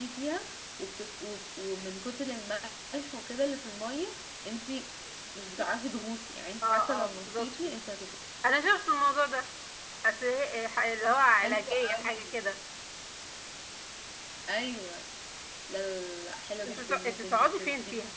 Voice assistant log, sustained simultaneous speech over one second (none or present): present